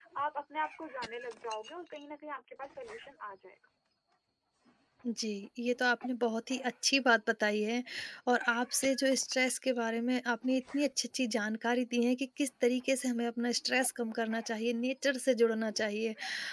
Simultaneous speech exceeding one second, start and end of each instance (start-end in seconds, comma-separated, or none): none